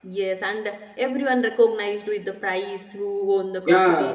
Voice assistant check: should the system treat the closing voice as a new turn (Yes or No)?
Yes